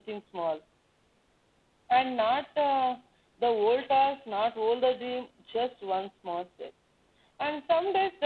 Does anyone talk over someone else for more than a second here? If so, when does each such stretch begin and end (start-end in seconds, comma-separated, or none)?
none